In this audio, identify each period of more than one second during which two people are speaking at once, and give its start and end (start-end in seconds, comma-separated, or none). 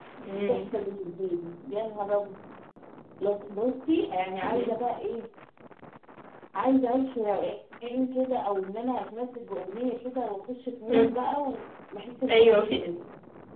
none